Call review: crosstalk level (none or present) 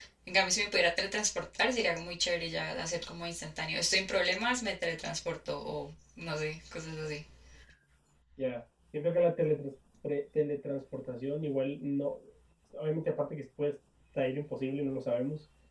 none